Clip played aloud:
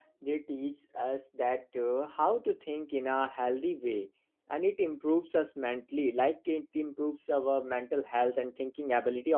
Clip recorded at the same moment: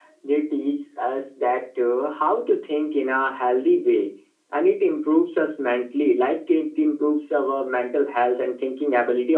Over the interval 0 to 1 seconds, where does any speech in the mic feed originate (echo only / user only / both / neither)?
echo only